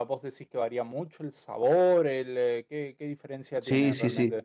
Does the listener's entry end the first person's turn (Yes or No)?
Yes